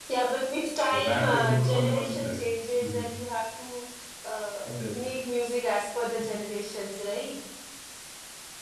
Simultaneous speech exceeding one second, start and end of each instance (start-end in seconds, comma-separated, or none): 0.9-2.4